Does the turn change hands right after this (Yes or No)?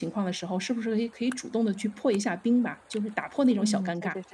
Yes